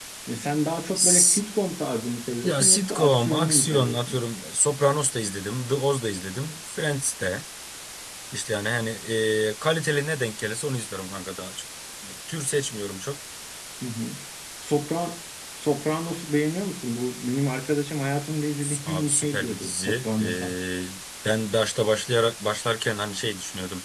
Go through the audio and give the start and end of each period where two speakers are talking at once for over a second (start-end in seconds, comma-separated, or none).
2.4-4.2, 18.9-20.5